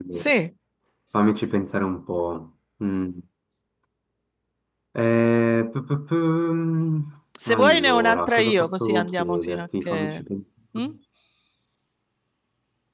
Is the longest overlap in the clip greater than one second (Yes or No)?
Yes